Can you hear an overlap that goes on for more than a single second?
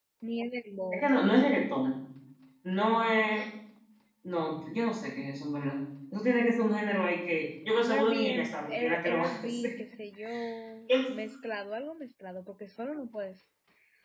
Yes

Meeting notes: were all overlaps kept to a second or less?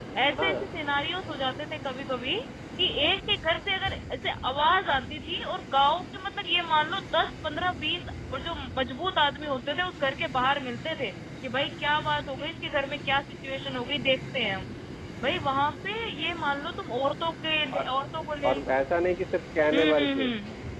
Yes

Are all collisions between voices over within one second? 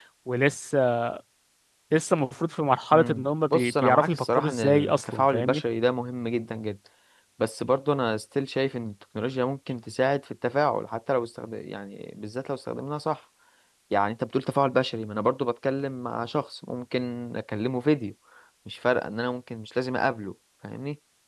No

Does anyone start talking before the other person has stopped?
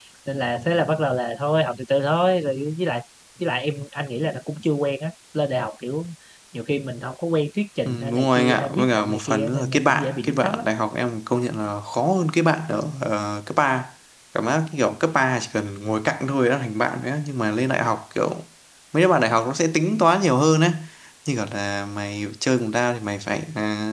Yes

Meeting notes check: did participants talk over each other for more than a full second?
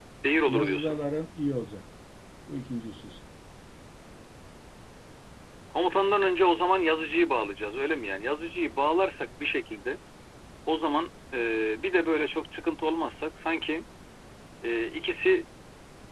No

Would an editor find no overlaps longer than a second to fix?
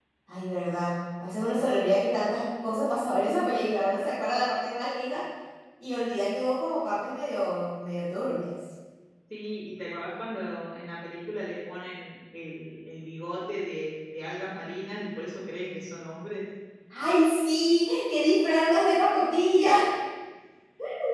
Yes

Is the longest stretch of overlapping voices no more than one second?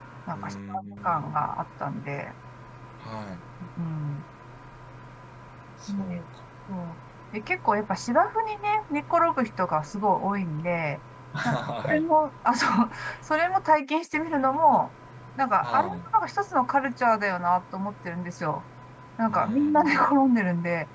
No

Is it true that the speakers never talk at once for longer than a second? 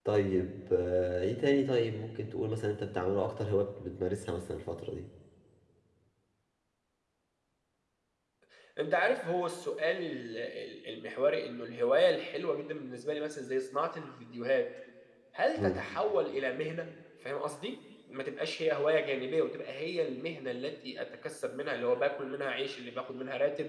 Yes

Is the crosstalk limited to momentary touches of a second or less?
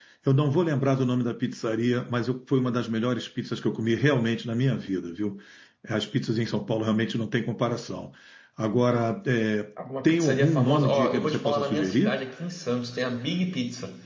No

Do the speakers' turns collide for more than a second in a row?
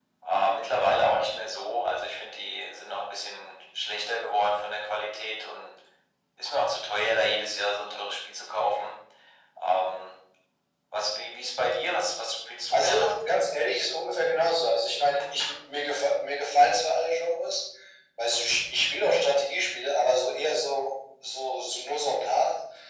No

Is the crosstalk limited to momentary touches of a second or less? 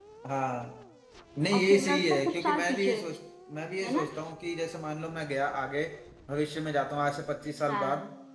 No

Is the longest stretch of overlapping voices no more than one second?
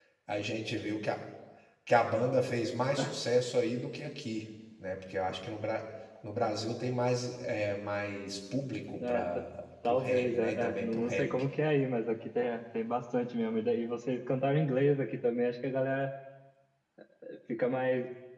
No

